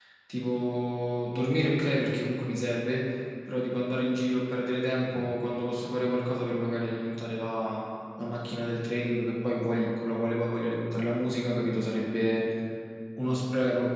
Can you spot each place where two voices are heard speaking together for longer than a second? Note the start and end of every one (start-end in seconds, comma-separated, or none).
none